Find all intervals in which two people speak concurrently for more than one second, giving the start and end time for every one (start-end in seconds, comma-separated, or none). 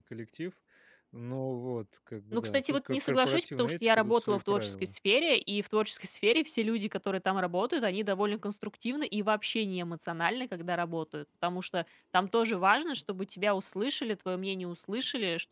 2.3-4.9